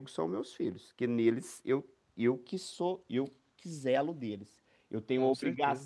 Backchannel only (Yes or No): Yes